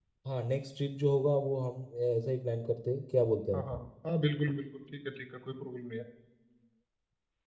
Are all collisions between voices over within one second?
Yes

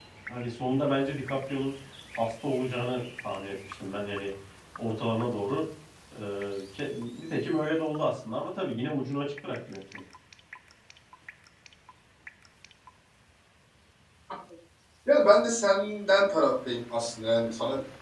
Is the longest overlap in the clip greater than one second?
No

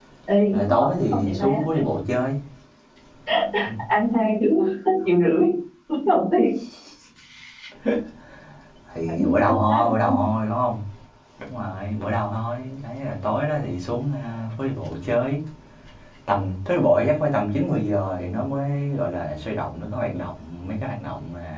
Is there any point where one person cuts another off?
Yes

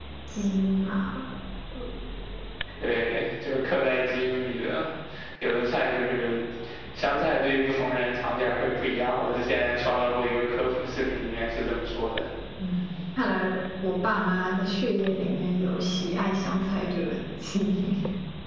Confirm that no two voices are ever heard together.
Yes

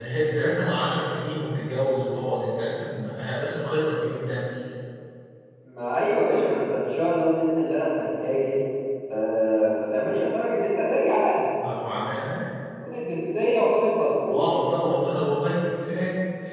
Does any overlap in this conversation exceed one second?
No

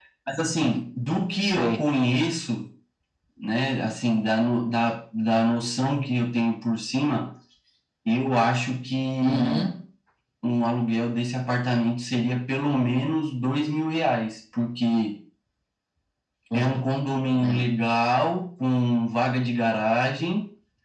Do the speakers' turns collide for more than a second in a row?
No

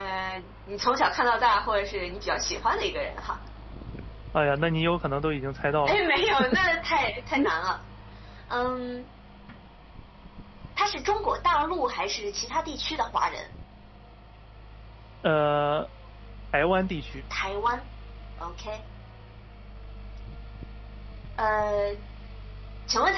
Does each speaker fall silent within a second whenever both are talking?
Yes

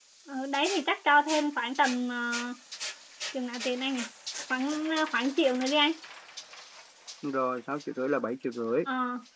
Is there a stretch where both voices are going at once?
No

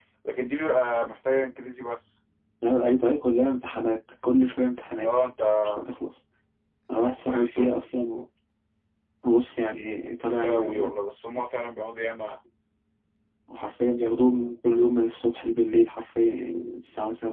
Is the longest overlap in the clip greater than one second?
No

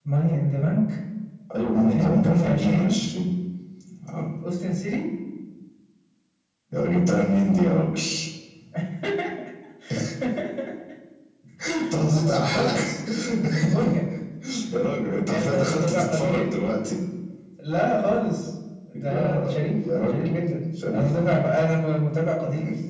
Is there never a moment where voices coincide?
No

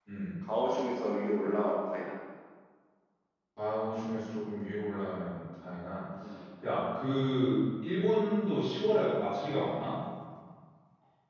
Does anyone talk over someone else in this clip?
No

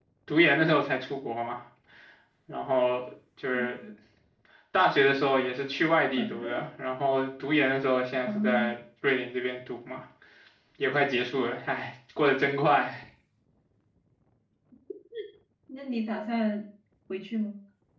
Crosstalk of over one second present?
No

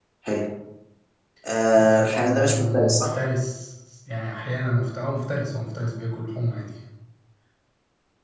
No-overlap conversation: No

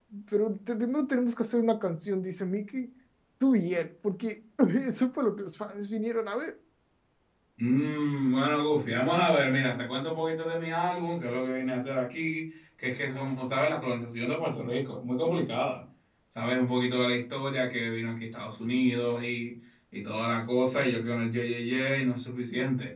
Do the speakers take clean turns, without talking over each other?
Yes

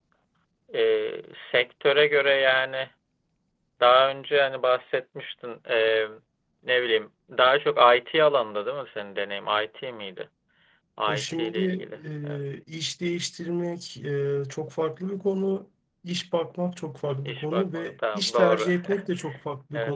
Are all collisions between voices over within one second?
No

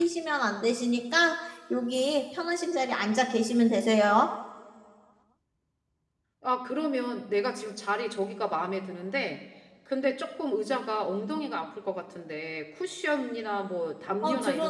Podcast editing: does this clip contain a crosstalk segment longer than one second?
No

